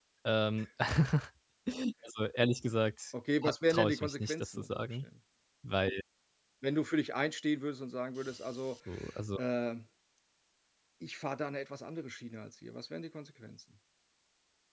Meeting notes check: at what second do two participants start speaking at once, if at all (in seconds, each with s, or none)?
3.7 s